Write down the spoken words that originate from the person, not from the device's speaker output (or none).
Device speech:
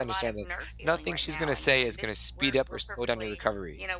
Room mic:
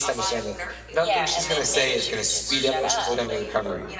Yeah, and then maybe she would just shut up